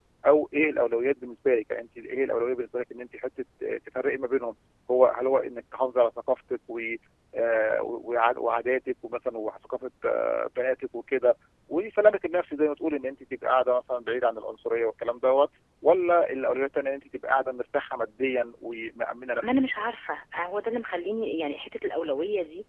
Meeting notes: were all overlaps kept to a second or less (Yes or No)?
Yes